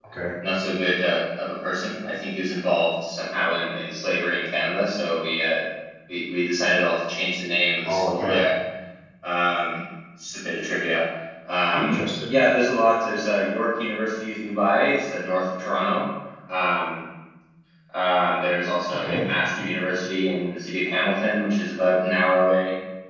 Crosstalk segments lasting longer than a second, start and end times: none

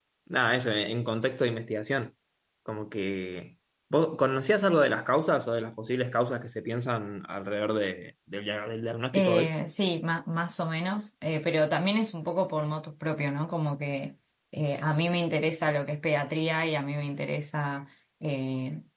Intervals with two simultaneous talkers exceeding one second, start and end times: none

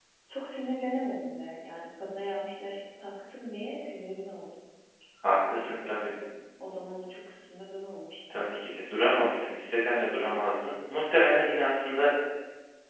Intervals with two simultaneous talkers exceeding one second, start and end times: none

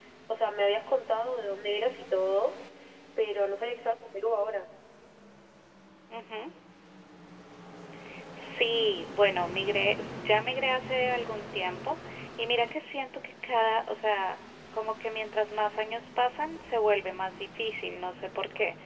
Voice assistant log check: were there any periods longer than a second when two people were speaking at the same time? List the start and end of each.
none

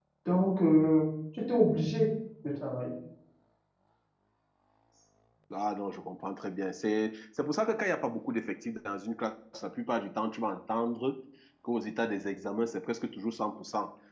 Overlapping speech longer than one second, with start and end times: none

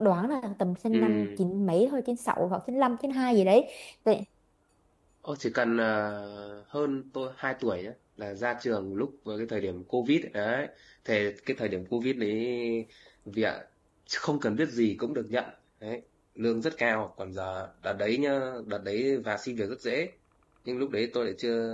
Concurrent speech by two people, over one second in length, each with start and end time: none

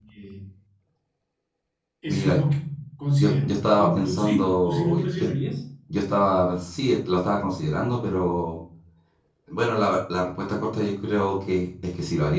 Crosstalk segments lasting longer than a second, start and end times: 3.2-5.3

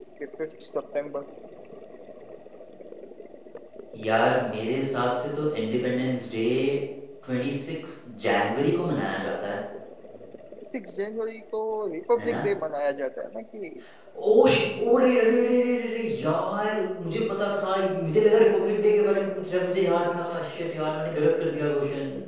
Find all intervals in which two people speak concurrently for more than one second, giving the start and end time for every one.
none

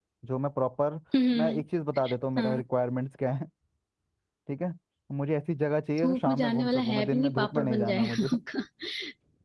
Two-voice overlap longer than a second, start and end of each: 6.0-8.3

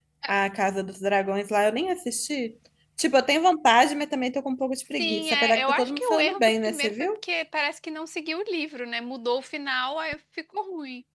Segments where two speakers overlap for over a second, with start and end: 5.0-6.9

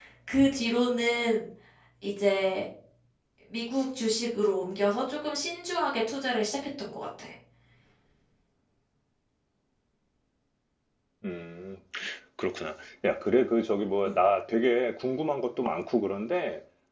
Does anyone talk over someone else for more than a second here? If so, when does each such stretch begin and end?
none

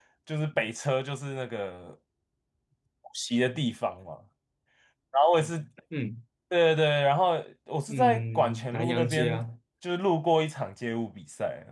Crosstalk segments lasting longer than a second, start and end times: 7.9-9.4

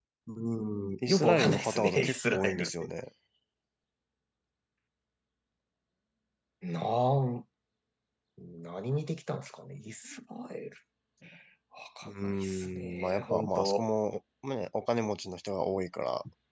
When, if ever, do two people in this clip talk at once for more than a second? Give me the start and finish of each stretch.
1.1-2.7, 12.2-13.8

